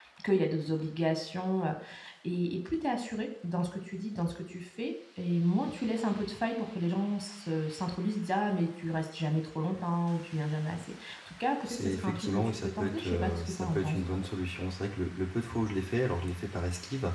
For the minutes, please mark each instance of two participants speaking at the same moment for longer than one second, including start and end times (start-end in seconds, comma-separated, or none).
11.7-14.2